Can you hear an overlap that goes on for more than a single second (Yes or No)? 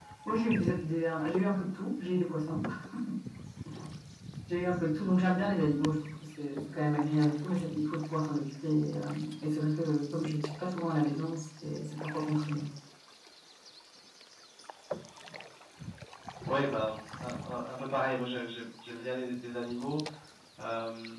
No